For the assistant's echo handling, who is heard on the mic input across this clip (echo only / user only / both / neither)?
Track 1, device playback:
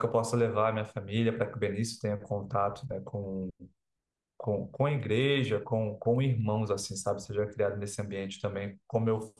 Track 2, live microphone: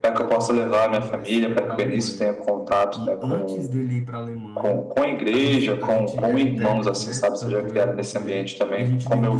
both